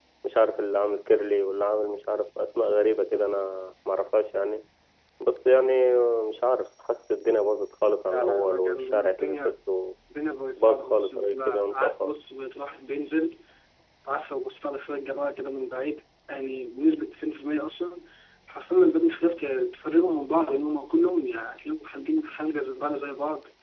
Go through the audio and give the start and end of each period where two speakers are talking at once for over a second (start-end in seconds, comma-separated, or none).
8.1-9.6, 10.6-12.1